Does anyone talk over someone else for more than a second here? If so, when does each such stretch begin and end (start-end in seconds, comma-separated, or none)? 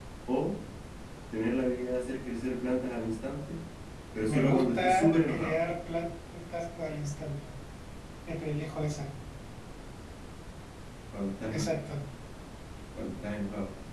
4.3-5.6